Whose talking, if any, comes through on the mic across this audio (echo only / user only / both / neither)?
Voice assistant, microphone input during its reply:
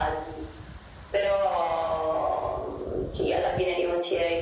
echo only